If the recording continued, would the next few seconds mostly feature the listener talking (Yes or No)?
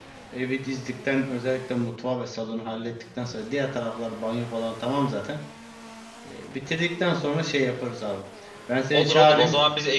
Yes